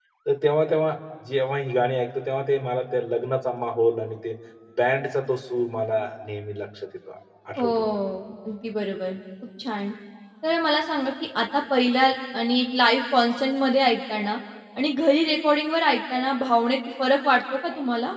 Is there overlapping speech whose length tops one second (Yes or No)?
No